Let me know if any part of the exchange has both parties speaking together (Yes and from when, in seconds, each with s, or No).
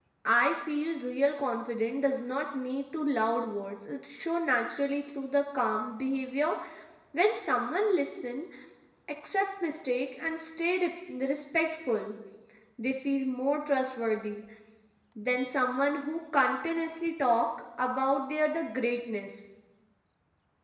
No